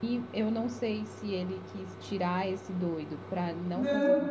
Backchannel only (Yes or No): Yes